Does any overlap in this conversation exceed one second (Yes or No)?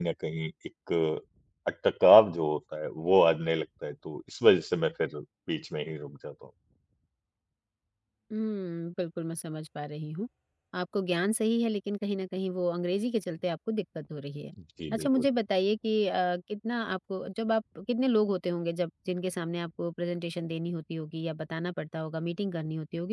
No